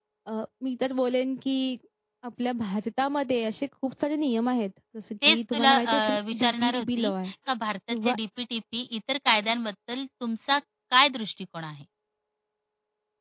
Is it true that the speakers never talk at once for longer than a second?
No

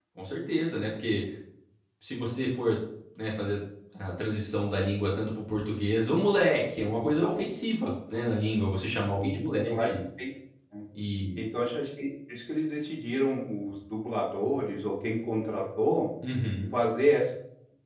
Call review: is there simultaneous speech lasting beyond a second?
No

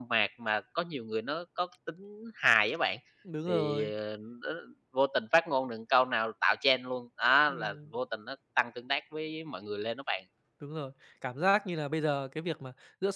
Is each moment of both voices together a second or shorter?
Yes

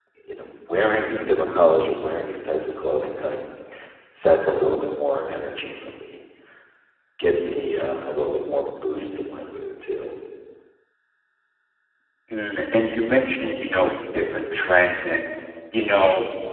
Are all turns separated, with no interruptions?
Yes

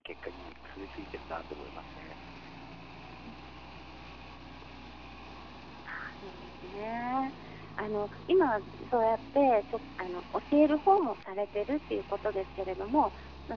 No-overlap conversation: Yes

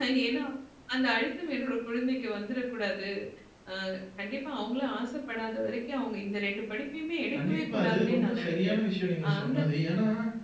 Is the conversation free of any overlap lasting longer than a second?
No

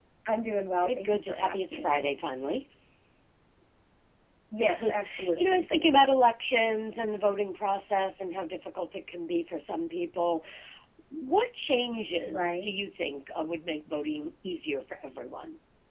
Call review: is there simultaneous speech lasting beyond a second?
Yes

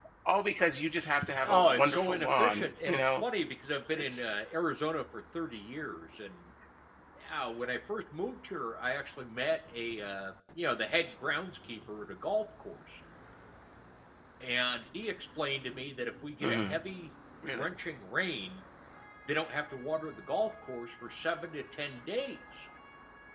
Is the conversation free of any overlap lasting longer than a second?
No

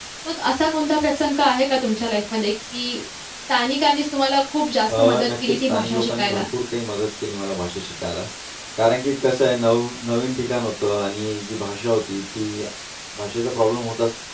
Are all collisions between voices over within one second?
No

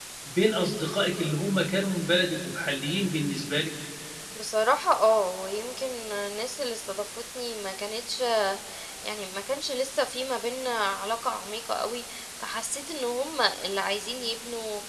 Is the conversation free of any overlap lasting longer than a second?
Yes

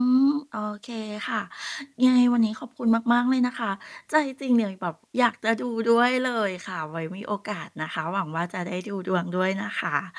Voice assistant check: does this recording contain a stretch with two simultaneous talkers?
No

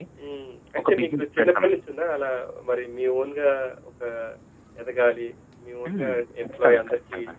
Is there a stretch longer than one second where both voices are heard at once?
Yes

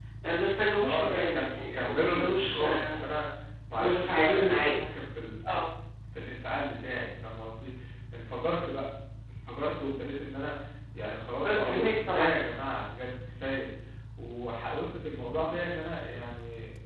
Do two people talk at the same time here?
Yes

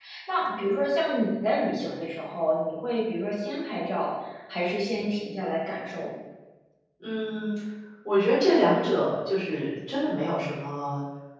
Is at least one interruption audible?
No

